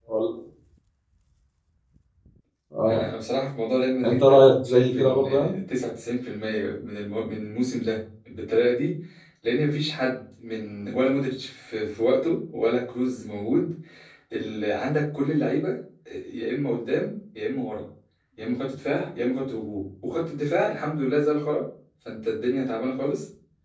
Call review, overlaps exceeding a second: present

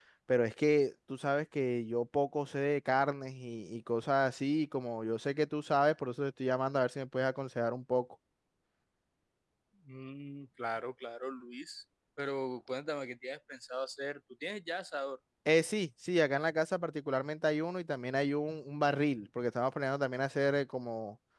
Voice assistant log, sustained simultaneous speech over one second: none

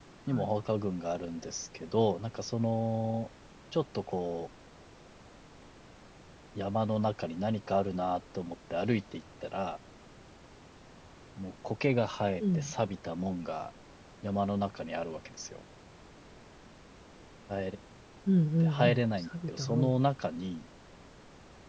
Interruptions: present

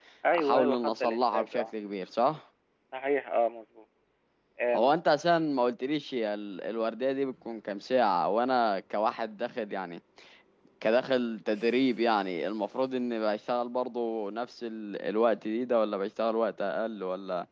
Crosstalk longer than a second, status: present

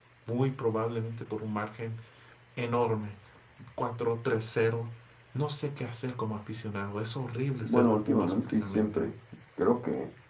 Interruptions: present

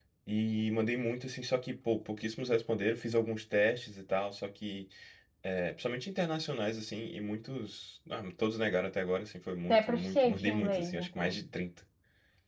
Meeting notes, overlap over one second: present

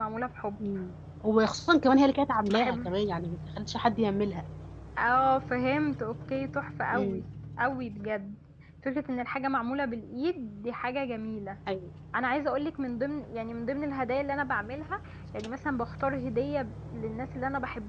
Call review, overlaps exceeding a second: none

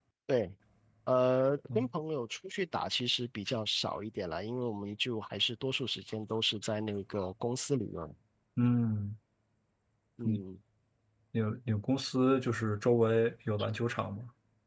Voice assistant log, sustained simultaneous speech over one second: none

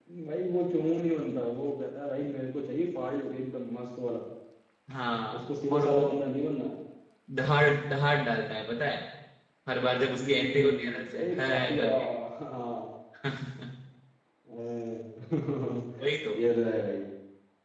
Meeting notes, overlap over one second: present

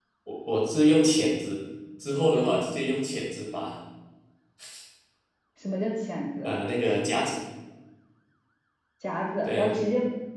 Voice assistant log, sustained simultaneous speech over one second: none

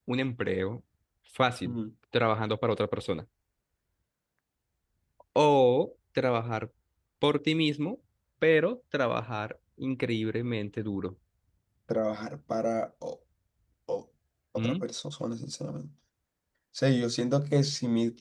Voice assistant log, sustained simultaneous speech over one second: none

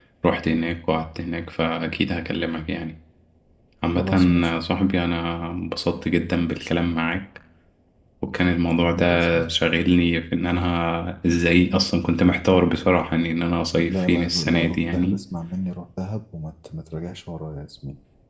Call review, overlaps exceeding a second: present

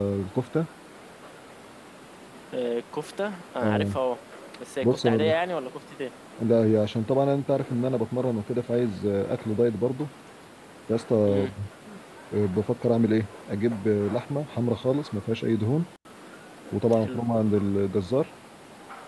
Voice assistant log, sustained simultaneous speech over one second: none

